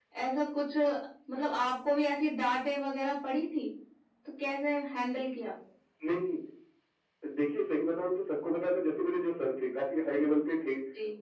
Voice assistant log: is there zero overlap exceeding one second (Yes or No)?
Yes